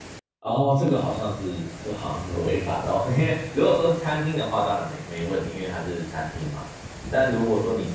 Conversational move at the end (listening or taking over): listening